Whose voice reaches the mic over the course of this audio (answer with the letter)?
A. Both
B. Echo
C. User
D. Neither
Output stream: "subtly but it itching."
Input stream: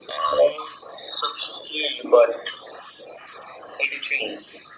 B